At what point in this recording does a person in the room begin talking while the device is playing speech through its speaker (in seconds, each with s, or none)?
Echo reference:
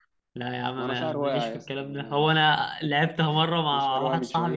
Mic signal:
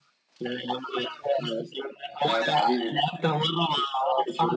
2.2 s